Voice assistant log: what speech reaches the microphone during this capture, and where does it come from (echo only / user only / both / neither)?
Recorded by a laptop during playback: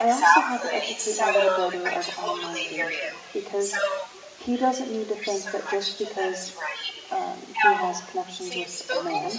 both